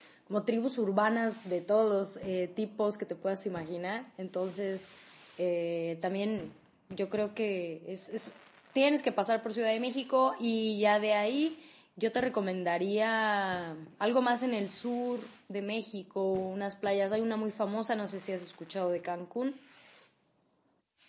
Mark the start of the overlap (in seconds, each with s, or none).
none